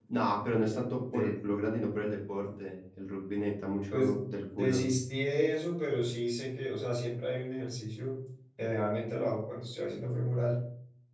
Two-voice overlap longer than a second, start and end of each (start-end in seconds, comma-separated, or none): none